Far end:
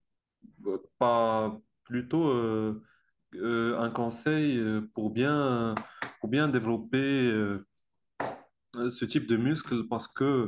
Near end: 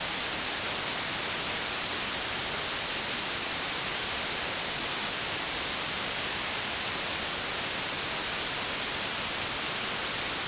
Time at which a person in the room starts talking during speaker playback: none

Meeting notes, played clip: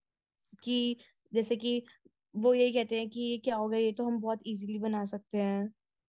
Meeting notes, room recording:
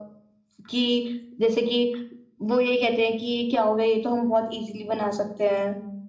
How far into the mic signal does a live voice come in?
none

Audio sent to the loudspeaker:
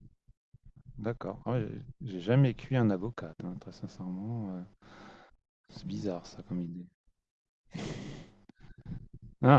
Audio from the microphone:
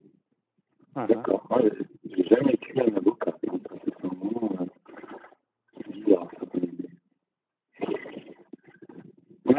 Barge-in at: 0.9 s

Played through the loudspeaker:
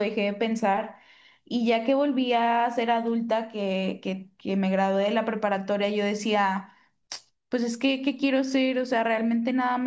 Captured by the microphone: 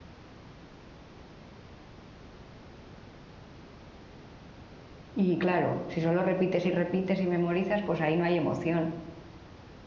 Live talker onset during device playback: 5.2 s

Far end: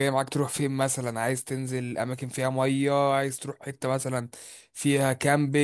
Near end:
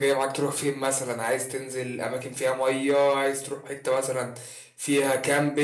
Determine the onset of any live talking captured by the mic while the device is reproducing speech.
none

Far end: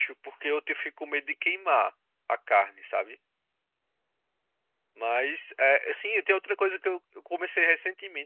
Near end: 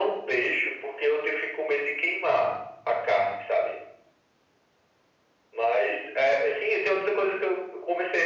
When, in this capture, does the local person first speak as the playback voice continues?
none

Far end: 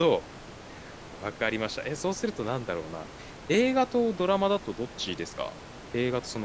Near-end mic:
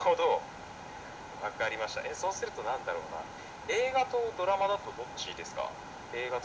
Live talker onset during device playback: none

